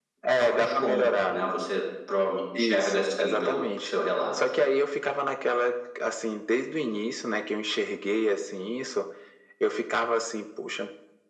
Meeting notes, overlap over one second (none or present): present